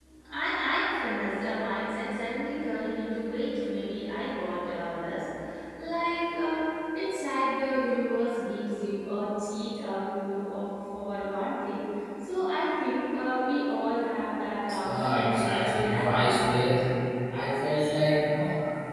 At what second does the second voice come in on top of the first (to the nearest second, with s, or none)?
15 s